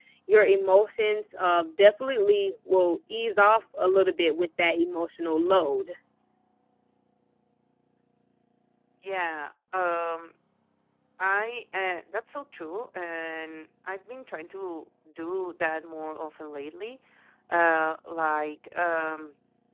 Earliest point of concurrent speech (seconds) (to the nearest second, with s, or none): none